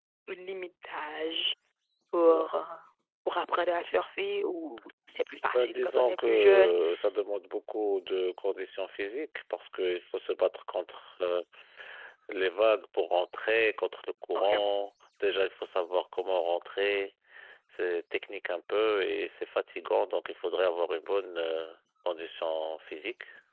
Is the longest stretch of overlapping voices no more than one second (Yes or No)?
No